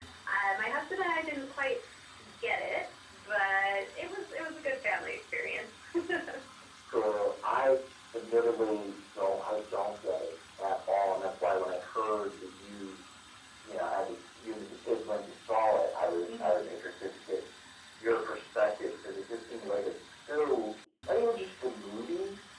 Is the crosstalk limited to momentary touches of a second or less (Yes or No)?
Yes